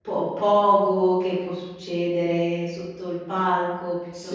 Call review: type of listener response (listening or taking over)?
taking over